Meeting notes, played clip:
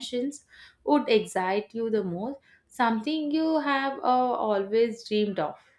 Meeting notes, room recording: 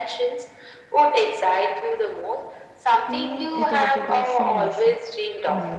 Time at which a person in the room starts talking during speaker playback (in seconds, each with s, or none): 3.0 s